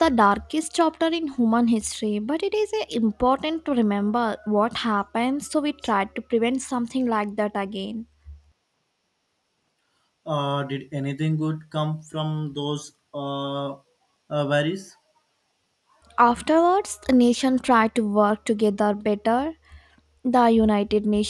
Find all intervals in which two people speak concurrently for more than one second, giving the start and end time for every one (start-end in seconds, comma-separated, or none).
none